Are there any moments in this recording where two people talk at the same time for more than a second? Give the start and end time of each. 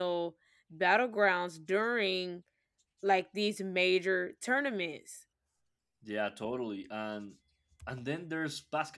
none

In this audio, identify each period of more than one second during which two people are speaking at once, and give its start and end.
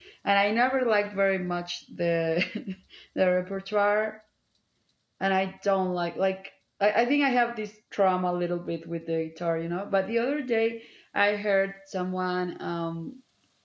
none

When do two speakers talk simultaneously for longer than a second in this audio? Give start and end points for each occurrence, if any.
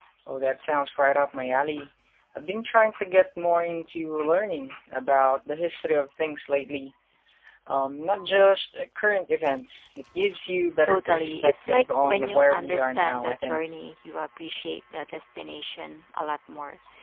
10.8-13.6

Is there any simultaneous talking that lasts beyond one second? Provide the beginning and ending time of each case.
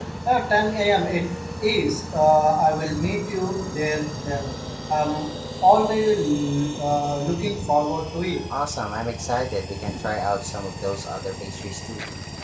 none

